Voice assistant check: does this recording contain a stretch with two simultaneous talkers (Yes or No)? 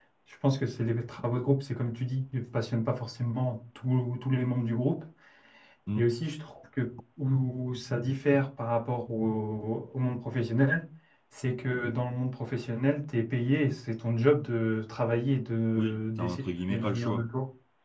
Yes